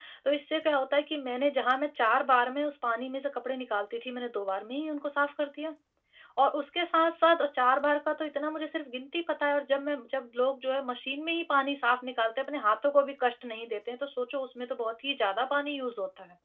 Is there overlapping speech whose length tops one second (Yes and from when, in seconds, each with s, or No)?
No